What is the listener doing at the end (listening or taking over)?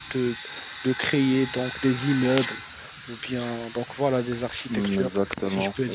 taking over